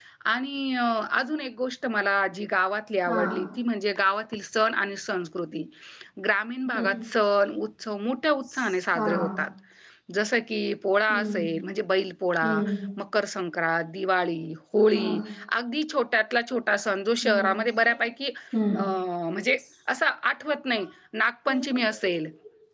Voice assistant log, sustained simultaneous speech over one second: none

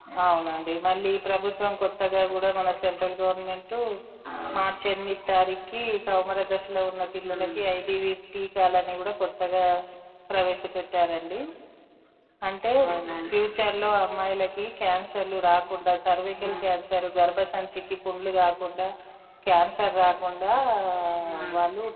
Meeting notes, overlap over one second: none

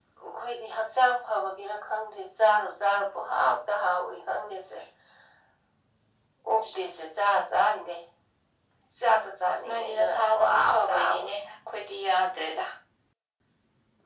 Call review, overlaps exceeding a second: present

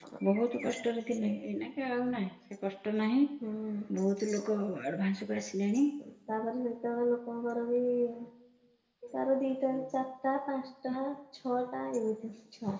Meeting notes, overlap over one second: none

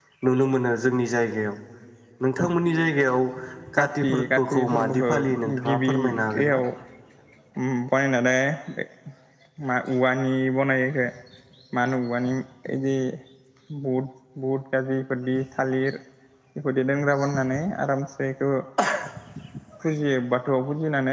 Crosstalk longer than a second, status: present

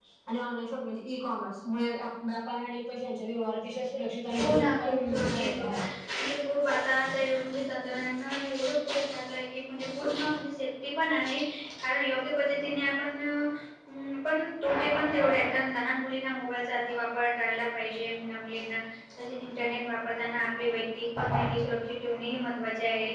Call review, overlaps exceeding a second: present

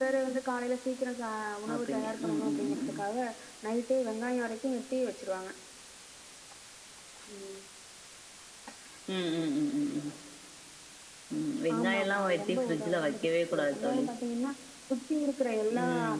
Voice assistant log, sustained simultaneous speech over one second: present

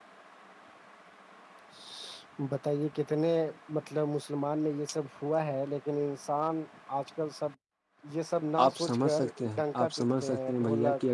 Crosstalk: present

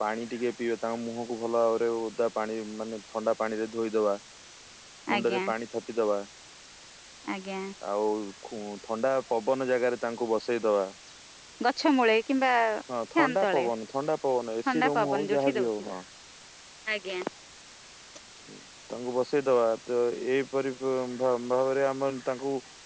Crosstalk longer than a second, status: present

